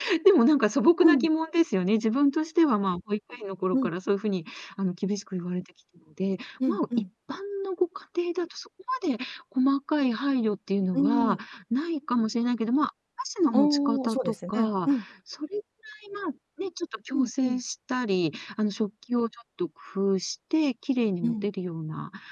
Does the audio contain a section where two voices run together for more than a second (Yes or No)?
Yes